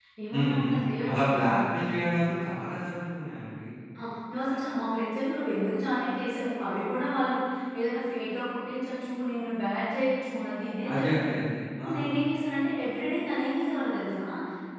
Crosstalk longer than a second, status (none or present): present